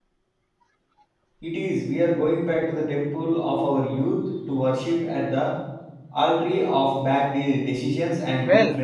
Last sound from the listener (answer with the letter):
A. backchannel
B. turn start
B